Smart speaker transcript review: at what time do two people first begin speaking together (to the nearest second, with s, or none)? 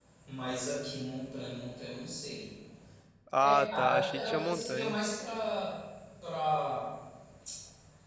3 s